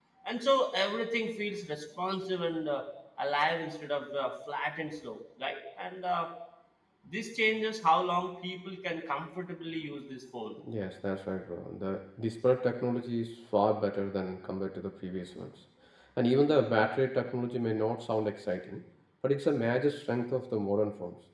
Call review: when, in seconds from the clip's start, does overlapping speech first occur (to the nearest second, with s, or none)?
none